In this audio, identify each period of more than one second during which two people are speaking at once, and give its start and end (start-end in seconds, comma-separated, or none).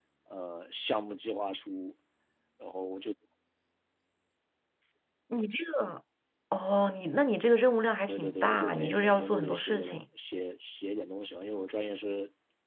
8.1-10.0